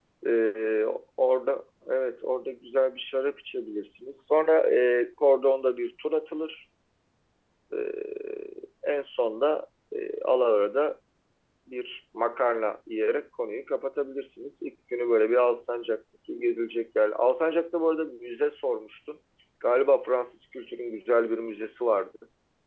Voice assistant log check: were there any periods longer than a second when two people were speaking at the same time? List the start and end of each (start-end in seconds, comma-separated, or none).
none